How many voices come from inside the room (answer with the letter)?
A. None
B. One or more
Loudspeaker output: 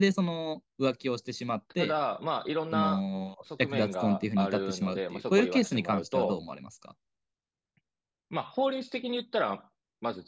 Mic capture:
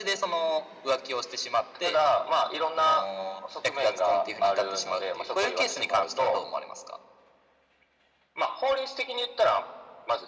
A